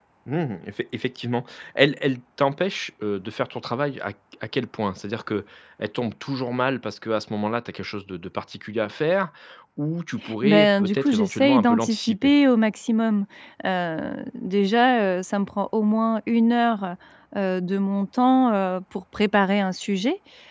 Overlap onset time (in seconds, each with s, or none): 10.4 s